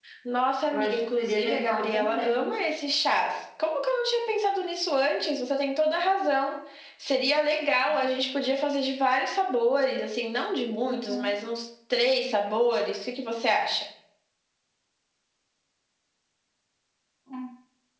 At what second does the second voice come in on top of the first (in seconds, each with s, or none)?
0.7 s